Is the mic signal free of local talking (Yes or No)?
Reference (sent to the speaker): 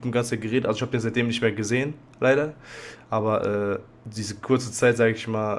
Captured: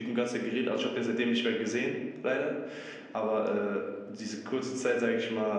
Yes